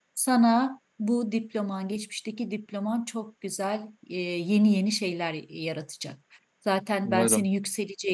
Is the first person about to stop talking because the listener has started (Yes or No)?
No